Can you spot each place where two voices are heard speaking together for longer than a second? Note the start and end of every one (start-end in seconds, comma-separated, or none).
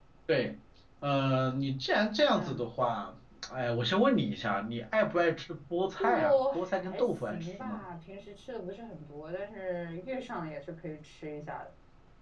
6.0-7.8